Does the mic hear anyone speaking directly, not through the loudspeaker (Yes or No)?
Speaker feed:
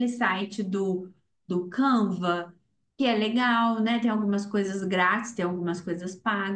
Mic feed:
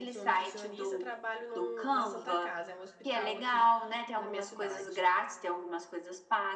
Yes